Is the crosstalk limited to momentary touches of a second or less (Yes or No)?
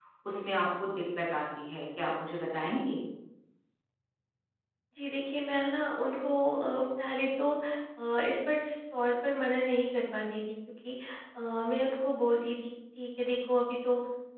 Yes